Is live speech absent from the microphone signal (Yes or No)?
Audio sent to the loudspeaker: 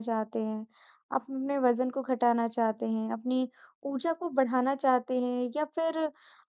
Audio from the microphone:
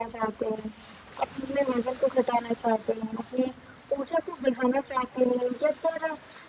Yes